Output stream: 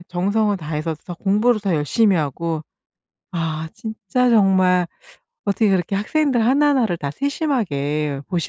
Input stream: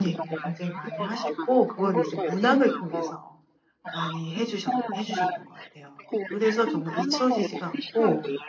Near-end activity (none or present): present